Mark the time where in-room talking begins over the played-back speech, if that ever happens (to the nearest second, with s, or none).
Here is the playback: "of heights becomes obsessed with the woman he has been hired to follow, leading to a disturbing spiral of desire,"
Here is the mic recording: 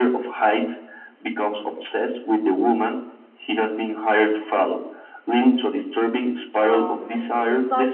7 s